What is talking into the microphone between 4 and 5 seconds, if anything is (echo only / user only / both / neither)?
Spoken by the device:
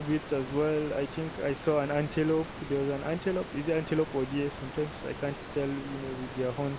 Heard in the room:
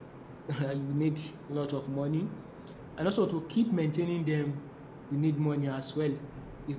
user only